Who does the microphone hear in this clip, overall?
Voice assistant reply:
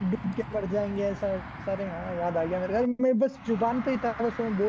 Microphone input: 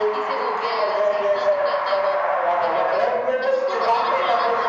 both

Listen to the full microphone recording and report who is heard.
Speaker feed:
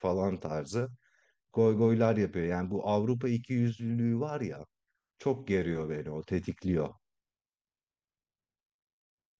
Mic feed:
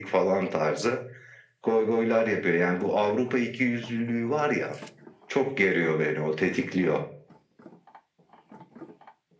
echo only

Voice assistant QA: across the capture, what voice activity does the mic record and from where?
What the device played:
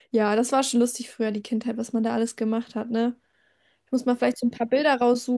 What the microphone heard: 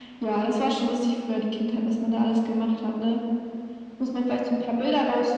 echo only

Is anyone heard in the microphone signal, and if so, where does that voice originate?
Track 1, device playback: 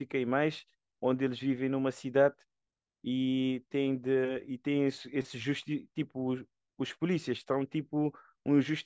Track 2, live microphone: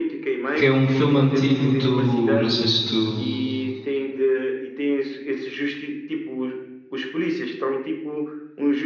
both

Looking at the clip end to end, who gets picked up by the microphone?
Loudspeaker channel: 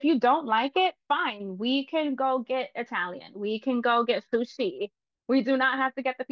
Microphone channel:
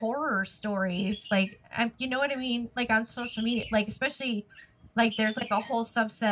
user only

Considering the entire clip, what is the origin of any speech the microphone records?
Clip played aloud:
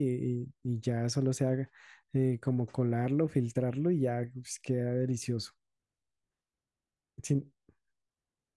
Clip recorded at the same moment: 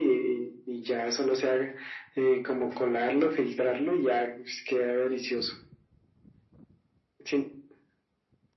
echo only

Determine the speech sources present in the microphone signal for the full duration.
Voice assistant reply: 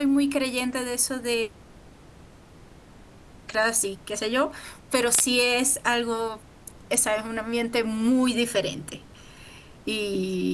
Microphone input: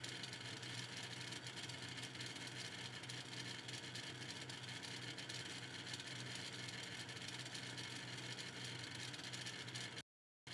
neither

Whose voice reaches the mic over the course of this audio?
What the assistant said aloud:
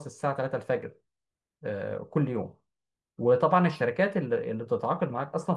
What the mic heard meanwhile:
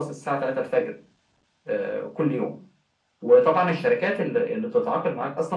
echo only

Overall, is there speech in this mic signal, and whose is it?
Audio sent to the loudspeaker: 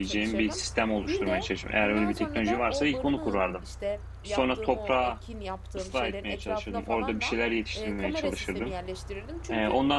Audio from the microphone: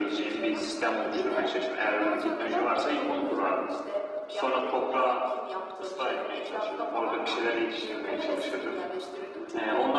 echo only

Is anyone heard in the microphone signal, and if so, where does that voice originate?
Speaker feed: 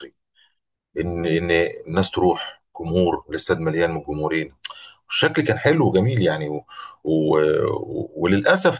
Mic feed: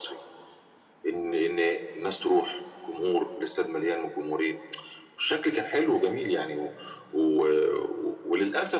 echo only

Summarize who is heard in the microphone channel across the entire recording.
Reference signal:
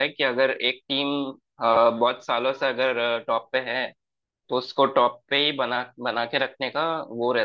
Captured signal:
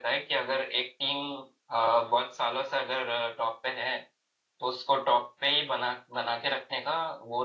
echo only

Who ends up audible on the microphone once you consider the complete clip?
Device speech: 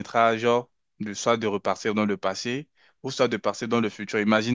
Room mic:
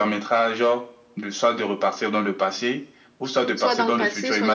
both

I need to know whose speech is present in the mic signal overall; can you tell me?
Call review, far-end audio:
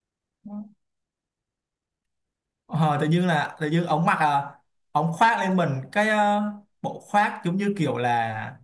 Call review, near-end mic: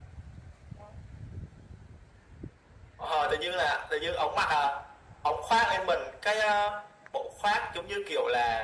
echo only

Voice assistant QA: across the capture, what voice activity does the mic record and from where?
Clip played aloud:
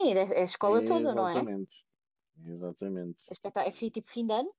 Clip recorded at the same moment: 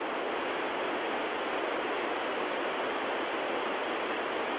neither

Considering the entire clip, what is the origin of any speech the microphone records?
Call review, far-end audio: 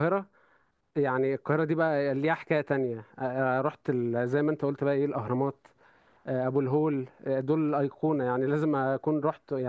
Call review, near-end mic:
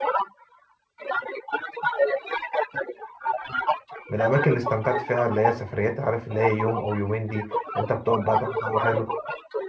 both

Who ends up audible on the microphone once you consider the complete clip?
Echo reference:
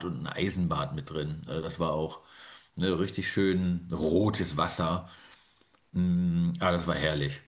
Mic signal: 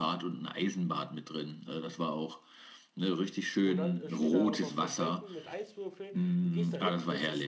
both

